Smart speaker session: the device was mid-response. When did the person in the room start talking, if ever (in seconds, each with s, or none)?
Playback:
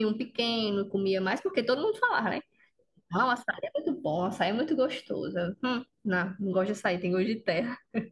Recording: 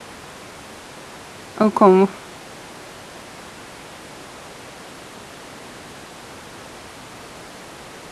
1.6 s